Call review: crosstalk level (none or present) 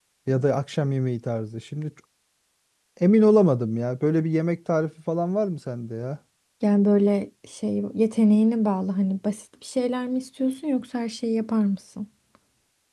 none